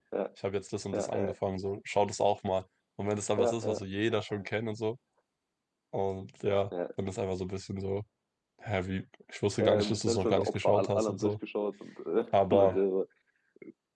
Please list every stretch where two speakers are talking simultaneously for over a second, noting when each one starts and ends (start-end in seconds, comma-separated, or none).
9.6-11.3